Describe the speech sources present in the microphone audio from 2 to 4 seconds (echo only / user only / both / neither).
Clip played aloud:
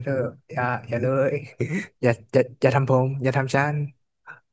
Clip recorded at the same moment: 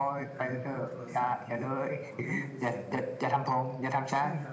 both